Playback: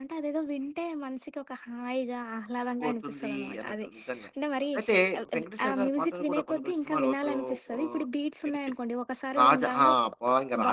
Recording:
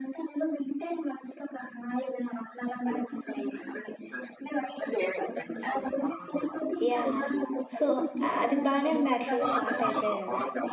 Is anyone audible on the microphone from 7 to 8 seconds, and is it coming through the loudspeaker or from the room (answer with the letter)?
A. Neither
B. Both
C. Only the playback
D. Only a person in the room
B